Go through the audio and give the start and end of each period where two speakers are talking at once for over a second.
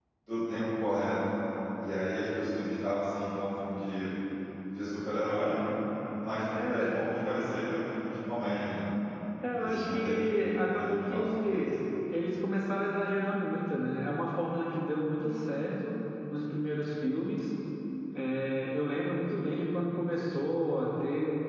9.6-11.7

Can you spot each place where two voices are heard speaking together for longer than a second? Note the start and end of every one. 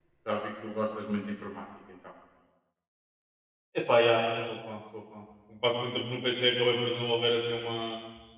none

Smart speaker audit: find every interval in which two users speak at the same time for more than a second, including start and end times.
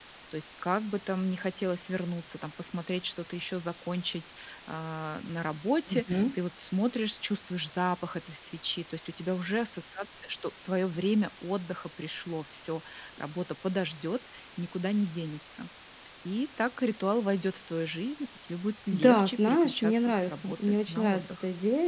18.9-21.4

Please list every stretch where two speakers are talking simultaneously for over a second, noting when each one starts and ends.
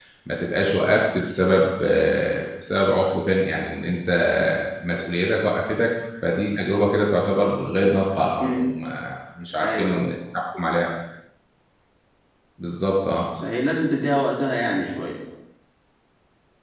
none

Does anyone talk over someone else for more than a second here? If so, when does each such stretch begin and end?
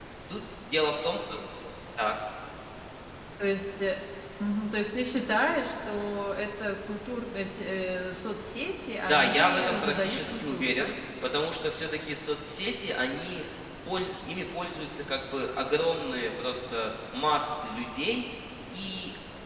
9.0-10.9

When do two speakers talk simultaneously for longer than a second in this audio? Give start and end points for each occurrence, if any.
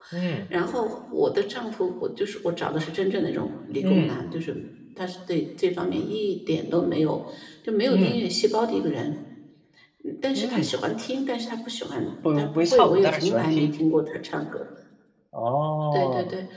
12.4-13.7

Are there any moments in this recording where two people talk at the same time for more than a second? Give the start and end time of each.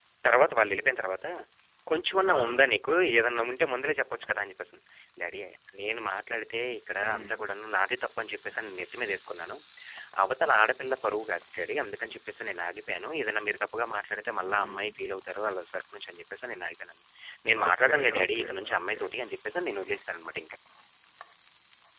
17.7-19.0

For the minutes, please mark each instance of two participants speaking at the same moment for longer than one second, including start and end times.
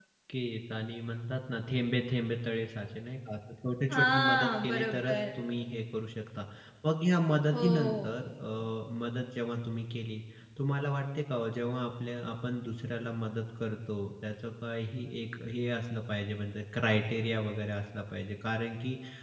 3.9-5.2

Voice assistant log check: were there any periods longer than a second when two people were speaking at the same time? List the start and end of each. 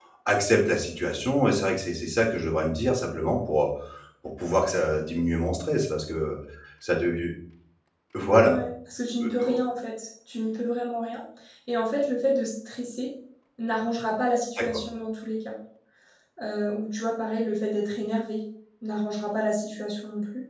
none

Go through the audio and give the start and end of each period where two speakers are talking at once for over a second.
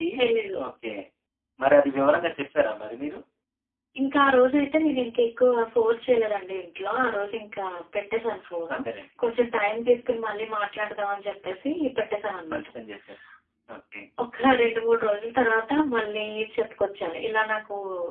none

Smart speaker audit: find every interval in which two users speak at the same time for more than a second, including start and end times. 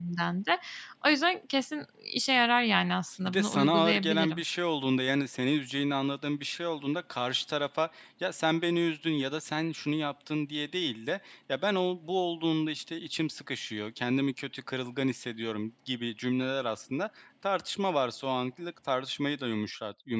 3.2-4.4

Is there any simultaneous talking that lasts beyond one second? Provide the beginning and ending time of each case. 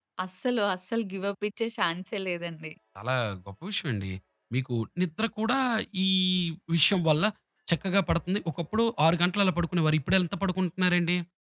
none

